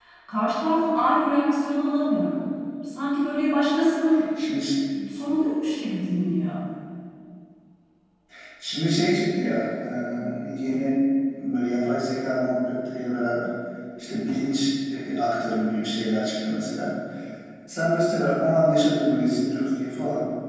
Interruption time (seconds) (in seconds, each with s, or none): none